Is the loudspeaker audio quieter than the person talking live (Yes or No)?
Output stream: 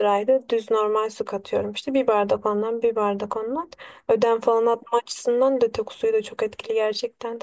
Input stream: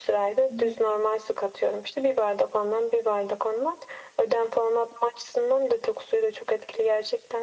No